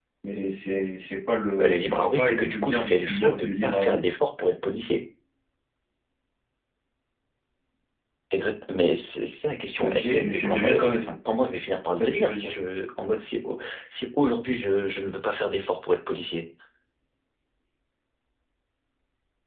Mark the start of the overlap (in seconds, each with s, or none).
1.6 s